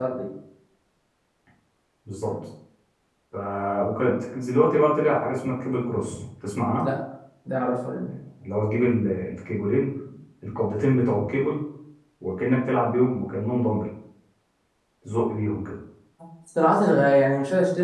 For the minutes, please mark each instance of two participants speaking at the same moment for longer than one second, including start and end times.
none

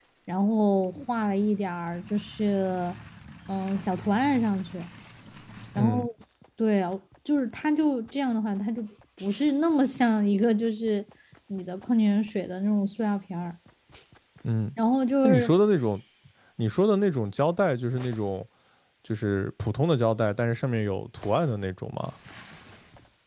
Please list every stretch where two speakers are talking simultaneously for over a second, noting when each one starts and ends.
none

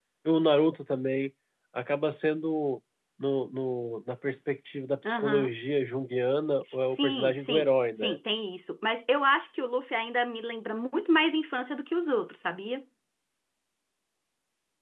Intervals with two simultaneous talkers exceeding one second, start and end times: 6.9-8.2

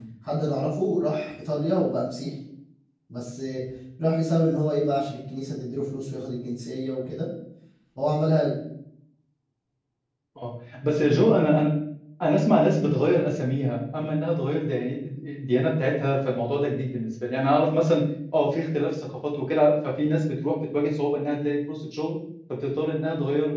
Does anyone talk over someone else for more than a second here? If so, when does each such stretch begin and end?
none

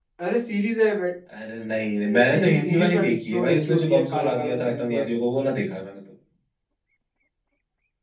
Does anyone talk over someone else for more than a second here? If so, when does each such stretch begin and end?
2.0-5.1

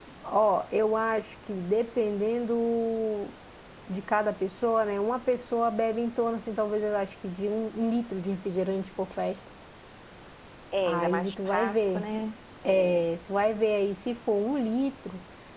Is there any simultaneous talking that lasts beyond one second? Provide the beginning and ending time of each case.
10.8-12.1

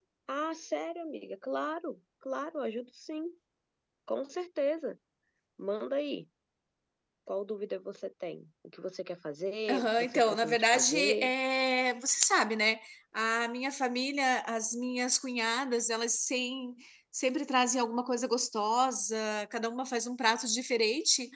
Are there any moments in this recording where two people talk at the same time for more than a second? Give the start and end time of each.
9.7-11.3

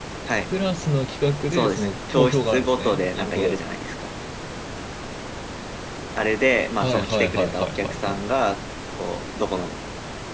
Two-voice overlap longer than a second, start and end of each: 1.5-3.6, 6.8-8.2

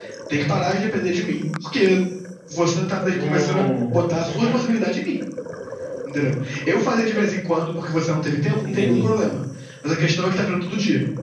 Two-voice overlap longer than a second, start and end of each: 3.1-4.6

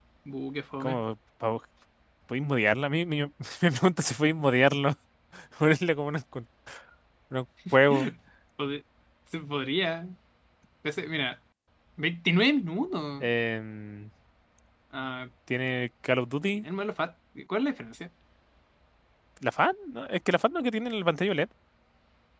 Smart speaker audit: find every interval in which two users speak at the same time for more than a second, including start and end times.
none

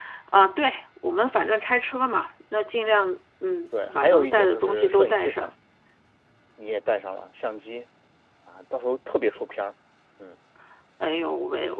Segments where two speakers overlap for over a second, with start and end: 3.8-5.5

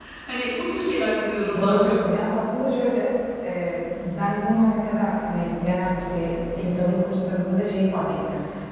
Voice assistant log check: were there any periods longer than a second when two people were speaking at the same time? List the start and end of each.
none

